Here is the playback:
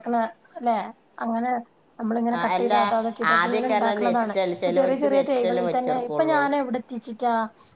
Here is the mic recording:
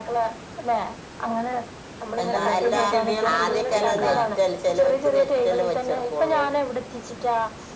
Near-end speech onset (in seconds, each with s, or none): 2.2 s